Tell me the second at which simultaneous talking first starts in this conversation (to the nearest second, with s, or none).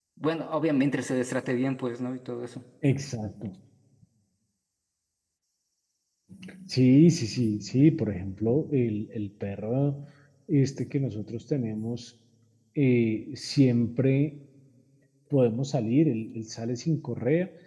none